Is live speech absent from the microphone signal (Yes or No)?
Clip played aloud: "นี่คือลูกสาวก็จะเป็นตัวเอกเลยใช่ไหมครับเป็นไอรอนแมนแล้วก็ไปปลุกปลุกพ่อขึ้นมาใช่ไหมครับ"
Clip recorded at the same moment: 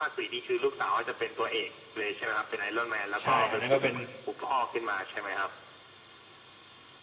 No